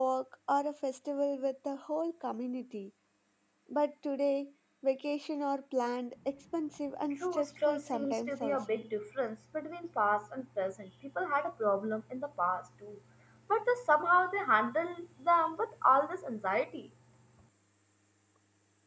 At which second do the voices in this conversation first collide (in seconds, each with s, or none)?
7.2 s